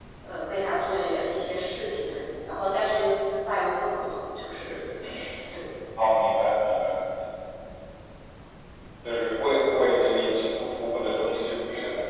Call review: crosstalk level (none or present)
none